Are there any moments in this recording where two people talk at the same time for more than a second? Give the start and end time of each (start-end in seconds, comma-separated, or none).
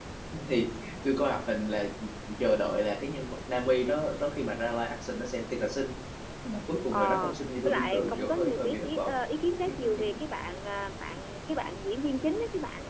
6.9-9.2